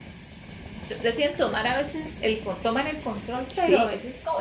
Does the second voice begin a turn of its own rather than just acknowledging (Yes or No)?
No